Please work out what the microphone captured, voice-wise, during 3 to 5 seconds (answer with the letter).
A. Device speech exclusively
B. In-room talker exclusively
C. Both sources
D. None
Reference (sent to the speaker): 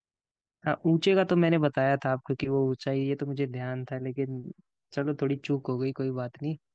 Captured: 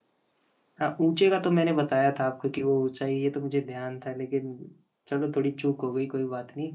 A